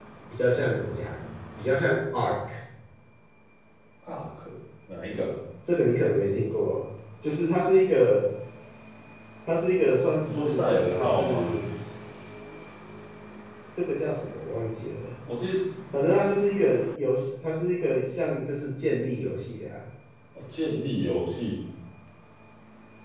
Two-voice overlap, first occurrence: 10.2 s

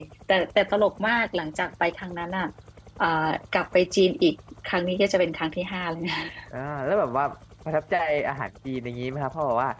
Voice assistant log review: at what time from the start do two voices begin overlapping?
none

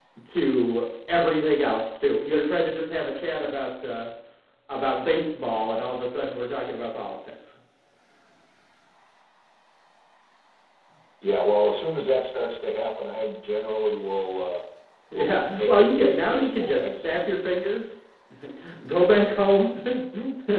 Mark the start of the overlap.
15.1 s

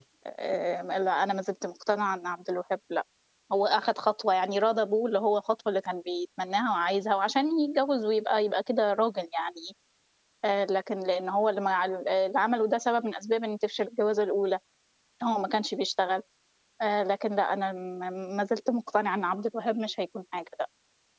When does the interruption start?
none

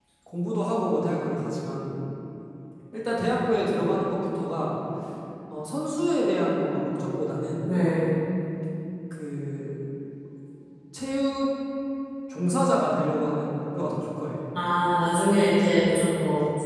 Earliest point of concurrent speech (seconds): none

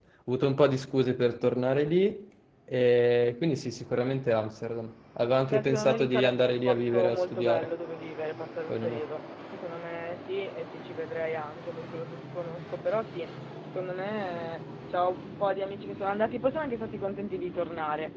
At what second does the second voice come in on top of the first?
5.5 s

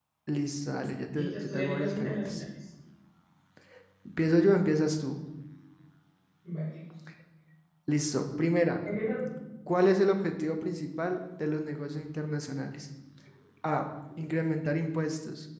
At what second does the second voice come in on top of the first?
1.1 s

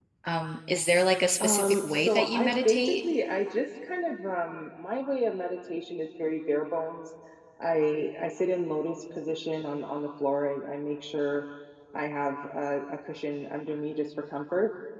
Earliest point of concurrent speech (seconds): 1.4 s

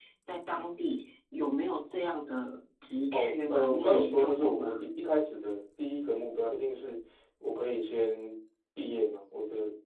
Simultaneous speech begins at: 3.1 s

